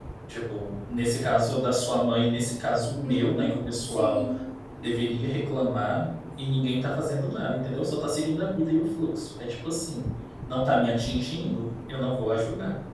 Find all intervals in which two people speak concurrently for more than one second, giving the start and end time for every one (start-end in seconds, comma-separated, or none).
3.0-4.2